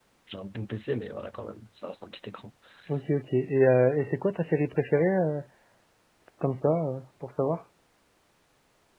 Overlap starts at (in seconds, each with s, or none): none